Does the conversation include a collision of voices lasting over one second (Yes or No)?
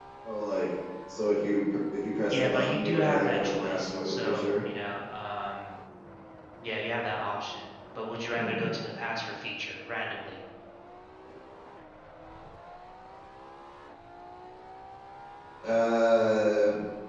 Yes